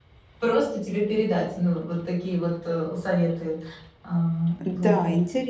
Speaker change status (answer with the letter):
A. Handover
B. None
A